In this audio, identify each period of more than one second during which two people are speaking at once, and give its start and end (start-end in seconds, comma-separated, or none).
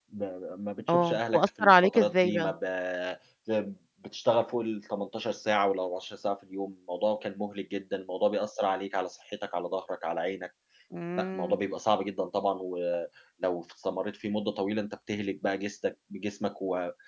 0.9-2.5